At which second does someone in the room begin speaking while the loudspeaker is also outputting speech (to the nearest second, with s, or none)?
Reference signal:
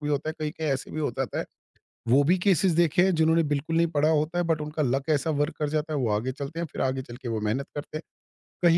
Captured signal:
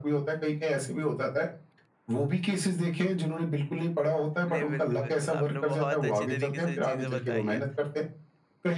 4 s